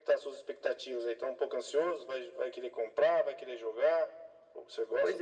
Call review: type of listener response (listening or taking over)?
taking over